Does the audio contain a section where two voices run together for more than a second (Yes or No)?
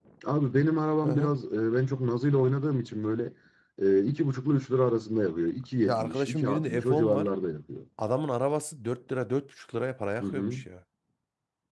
Yes